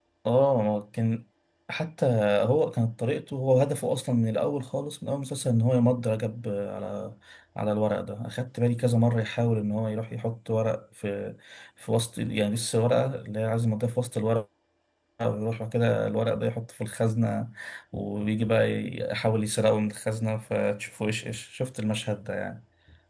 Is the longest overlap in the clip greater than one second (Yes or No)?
No